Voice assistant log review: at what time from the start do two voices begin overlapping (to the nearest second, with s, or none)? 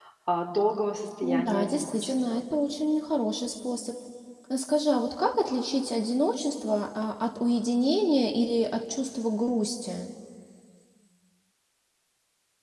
1 s